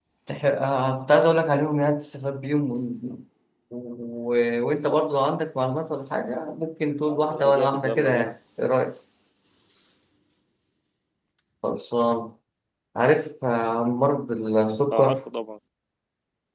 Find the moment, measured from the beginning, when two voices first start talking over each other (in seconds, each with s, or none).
7.1 s